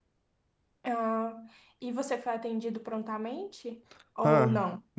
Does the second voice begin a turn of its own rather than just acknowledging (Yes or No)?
Yes